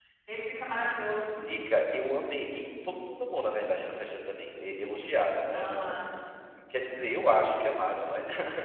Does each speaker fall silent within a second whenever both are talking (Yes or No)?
Yes